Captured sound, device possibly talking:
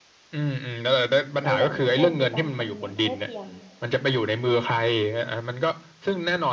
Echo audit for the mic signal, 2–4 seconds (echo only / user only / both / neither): both